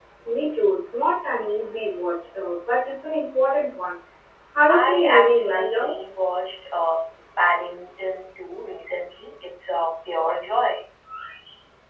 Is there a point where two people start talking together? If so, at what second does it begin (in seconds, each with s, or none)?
4.7 s